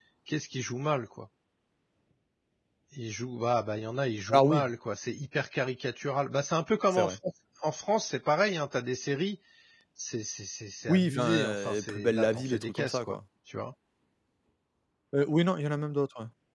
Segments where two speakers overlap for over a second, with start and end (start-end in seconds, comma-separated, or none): 10.9-13.2